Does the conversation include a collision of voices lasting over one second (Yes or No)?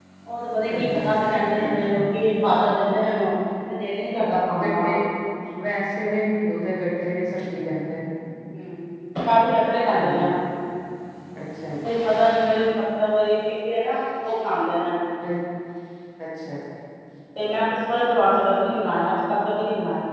No